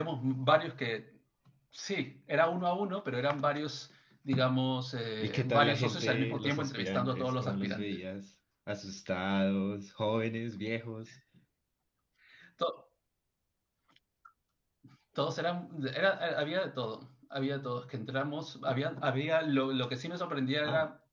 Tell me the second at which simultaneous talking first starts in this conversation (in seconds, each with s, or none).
5.2 s